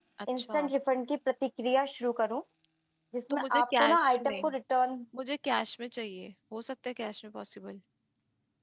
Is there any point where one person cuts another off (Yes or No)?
Yes